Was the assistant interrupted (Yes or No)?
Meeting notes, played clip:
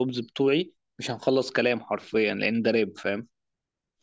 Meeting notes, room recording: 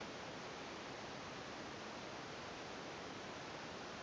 No